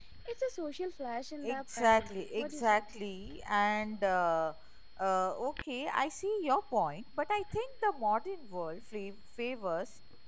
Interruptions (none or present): present